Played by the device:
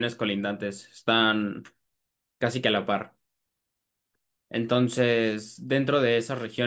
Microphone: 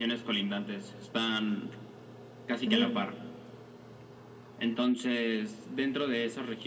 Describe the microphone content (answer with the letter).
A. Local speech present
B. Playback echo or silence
A